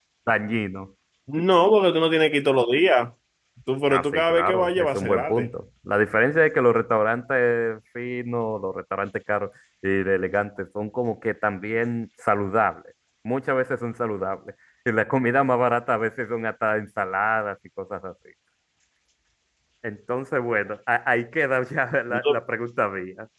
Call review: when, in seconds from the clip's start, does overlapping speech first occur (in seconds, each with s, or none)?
3.9 s